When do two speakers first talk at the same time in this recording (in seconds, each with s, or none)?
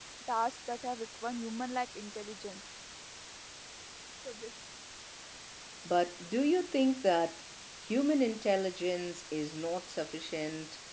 none